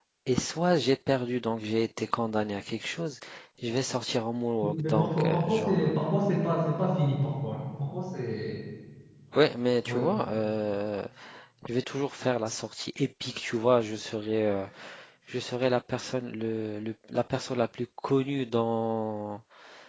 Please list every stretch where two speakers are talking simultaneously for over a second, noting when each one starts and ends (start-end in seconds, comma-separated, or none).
4.6-5.9